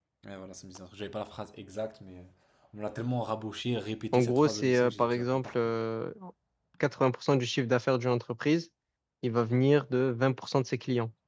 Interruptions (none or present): present